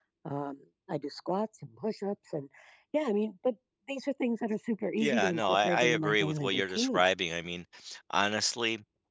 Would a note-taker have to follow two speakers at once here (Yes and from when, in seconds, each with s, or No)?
Yes, from 5.0 s